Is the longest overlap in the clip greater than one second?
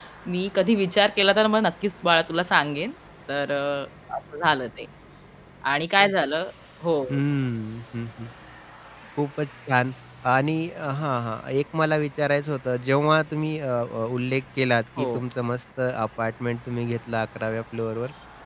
No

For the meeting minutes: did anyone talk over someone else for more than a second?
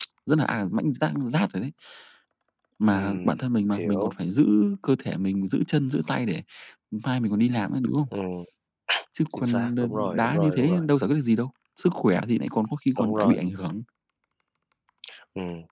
Yes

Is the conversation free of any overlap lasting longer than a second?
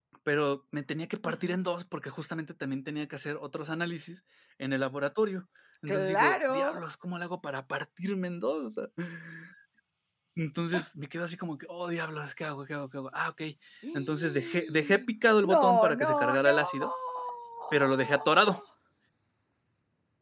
No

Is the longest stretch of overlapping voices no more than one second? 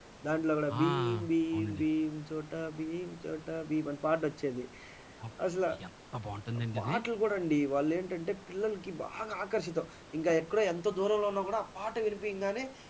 Yes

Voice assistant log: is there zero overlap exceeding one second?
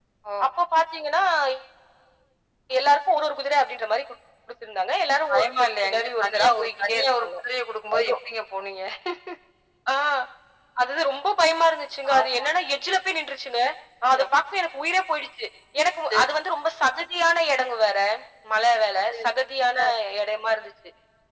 No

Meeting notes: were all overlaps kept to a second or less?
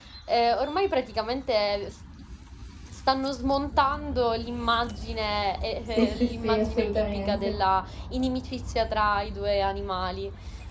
No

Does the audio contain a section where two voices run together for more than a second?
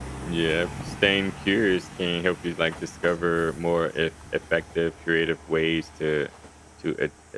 No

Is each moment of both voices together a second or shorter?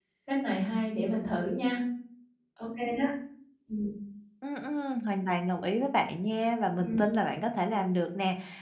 Yes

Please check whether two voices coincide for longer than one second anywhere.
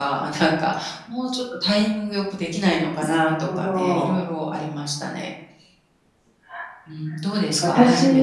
Yes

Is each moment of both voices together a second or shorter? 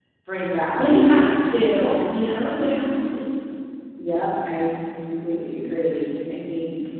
No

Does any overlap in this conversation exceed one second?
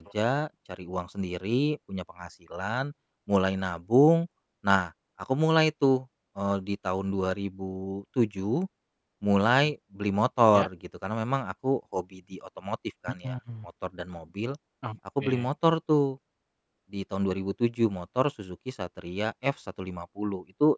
No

